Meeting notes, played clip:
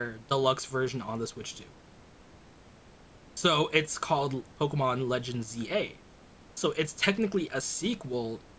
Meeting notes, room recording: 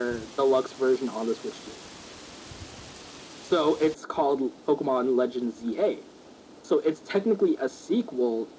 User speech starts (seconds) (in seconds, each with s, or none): none